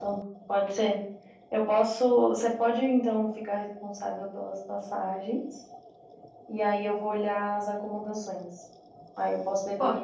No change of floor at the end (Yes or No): Yes